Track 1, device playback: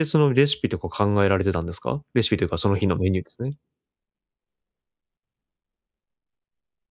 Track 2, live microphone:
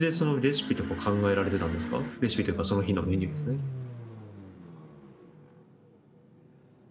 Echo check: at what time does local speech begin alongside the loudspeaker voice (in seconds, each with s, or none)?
none